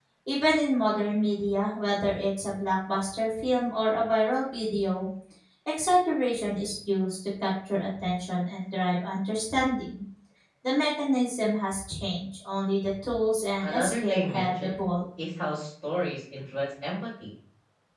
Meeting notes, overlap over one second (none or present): present